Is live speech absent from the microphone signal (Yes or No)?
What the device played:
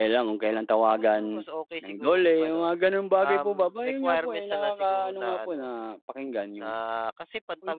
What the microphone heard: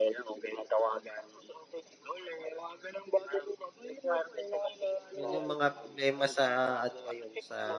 No